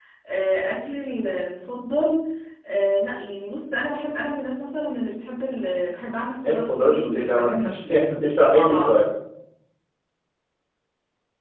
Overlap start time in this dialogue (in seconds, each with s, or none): 6.4 s